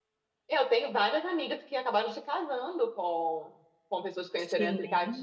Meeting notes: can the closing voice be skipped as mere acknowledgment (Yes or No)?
Yes